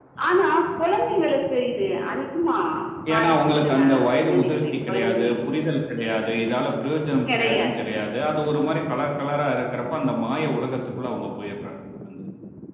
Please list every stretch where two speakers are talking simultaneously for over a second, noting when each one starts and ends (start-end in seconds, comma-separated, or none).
3.1-5.3